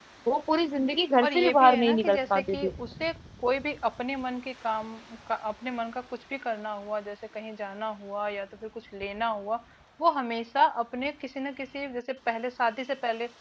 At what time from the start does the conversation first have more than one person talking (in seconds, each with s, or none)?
1.2 s